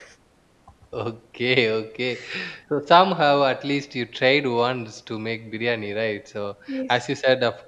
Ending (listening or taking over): listening